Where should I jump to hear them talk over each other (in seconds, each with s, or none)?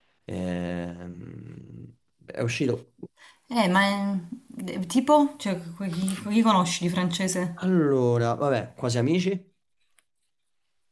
none